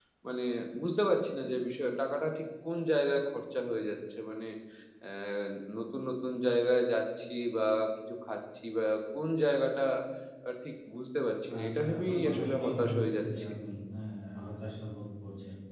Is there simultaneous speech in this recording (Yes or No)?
Yes